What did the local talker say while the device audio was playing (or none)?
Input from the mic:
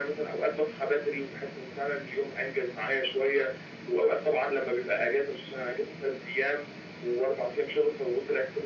none